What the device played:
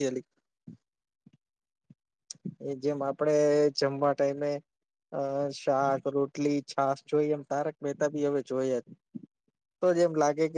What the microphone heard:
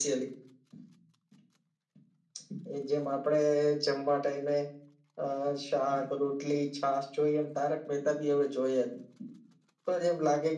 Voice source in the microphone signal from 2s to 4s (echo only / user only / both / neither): echo only